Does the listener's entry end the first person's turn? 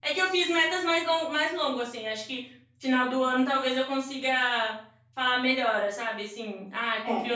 No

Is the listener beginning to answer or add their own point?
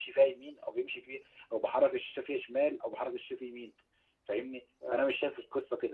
No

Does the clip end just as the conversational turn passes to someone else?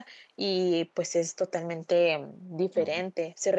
No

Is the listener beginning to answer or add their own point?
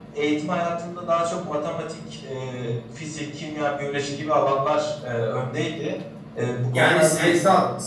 Yes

